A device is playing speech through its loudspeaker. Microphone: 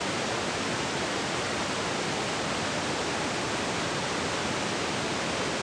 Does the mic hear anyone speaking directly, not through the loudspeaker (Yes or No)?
No